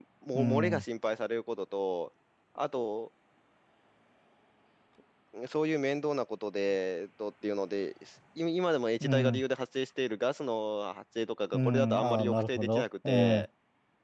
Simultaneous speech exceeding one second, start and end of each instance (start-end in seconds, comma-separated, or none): 11.5-13.4